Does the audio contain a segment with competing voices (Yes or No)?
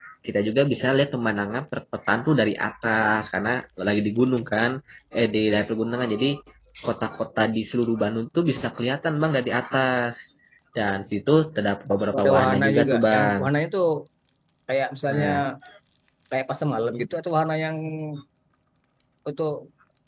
Yes